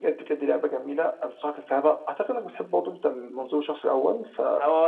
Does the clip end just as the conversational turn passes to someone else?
Yes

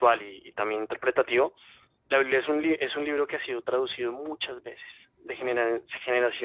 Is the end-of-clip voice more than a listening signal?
No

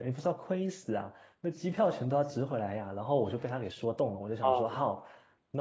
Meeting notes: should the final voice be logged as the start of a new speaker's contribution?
No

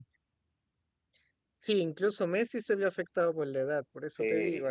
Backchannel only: No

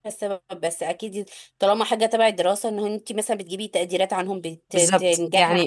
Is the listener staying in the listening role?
No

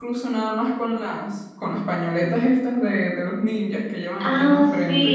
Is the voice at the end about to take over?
Yes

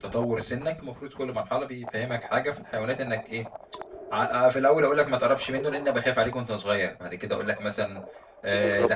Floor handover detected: No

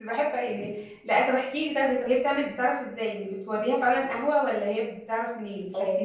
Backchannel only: No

